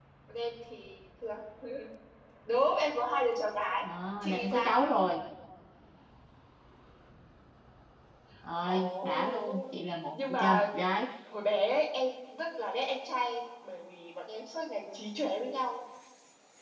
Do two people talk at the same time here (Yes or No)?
Yes